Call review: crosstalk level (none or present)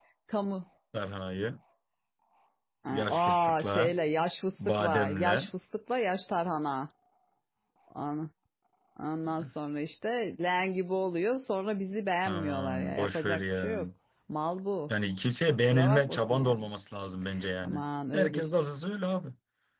present